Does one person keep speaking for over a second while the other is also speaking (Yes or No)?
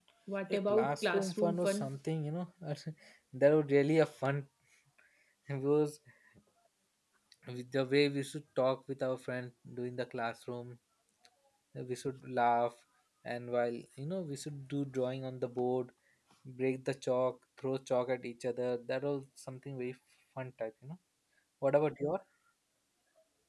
Yes